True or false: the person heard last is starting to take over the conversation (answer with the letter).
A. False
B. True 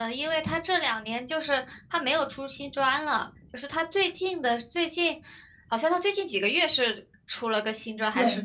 B